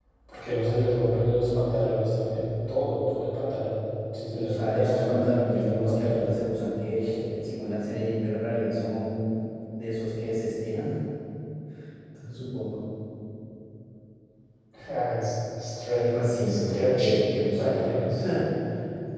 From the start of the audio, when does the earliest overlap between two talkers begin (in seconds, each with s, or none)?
4.3 s